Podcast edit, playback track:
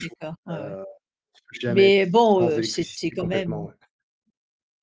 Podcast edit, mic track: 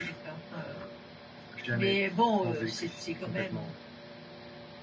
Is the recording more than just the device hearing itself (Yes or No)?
No